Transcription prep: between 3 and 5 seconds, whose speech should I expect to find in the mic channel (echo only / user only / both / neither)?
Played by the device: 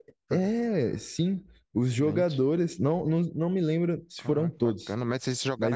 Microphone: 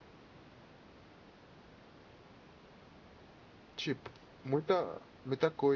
user only